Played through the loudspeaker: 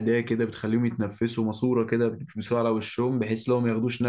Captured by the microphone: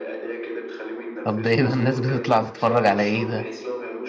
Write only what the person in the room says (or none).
طب ده إيه ده الناس بتطلع تتفرج على إيه ده